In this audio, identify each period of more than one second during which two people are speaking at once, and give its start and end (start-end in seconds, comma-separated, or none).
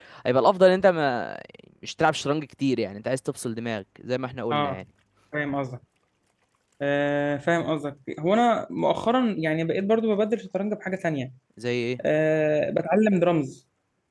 none